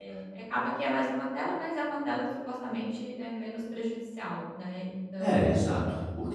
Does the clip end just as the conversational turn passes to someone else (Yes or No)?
Yes